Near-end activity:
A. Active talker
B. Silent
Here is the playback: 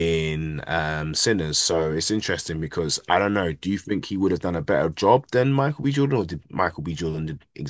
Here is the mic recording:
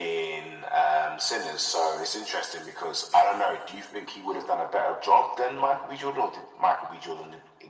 B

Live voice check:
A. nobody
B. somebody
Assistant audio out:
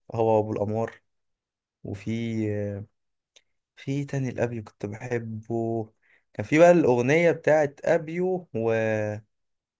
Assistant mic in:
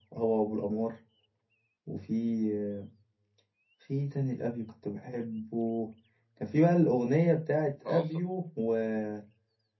B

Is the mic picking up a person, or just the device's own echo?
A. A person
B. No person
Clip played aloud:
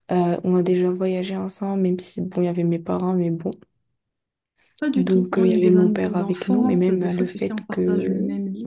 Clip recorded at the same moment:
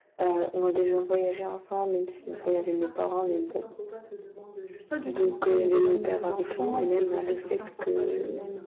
A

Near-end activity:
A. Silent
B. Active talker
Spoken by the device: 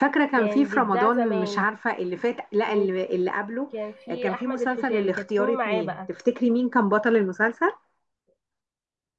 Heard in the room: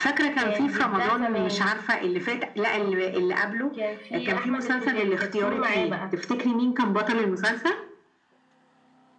A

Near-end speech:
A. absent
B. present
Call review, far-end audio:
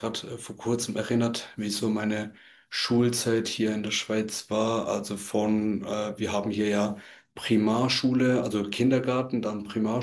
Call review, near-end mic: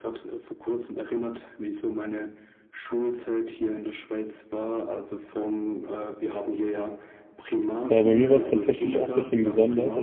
B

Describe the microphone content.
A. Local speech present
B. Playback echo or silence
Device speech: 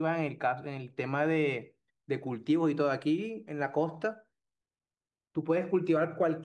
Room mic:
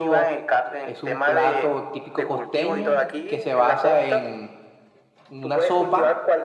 A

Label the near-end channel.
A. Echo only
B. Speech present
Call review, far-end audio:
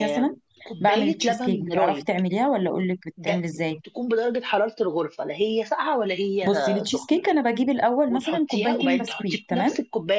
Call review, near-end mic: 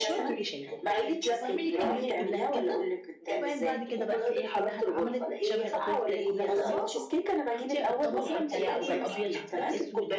B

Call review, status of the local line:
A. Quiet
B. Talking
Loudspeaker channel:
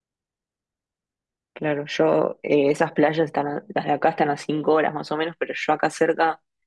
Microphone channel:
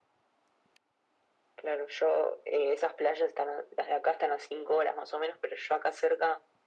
A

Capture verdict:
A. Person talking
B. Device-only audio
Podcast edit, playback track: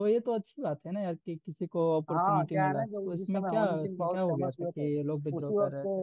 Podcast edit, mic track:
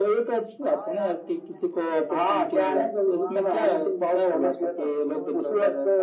A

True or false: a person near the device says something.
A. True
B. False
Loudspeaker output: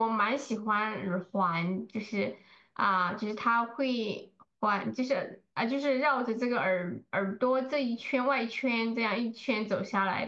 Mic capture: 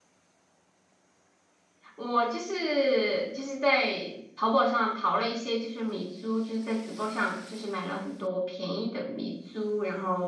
A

